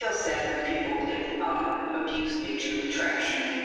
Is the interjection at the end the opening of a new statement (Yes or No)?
Yes